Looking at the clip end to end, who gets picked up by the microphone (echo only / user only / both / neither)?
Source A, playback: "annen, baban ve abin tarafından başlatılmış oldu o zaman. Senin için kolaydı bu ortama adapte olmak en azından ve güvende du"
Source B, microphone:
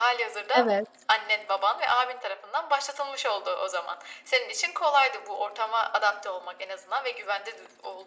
both